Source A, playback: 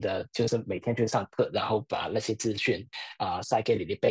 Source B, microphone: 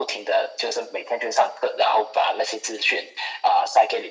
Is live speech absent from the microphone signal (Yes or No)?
Yes